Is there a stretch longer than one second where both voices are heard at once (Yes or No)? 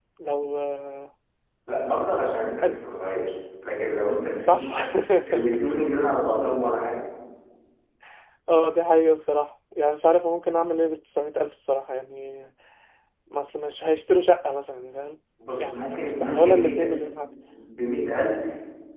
Yes